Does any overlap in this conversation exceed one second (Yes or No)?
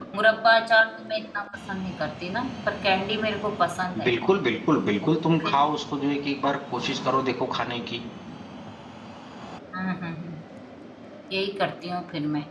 No